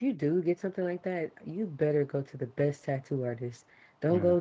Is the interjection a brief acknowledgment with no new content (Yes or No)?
Yes